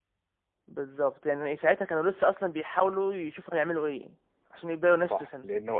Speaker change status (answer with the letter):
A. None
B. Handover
B